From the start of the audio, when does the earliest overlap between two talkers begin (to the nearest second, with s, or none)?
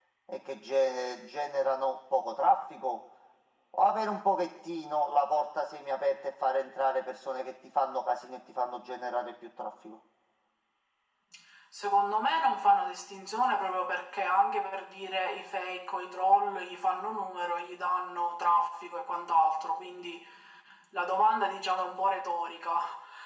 none